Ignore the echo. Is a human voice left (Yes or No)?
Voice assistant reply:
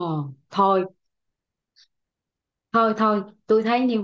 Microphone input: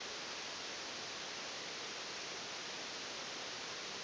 No